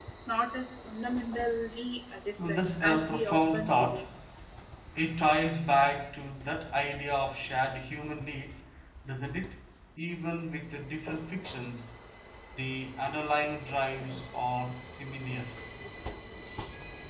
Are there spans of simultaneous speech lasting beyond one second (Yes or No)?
Yes